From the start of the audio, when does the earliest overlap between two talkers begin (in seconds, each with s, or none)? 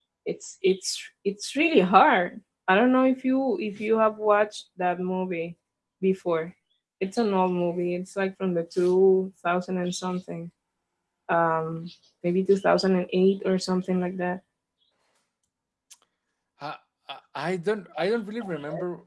none